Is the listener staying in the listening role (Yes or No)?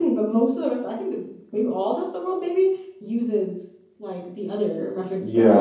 No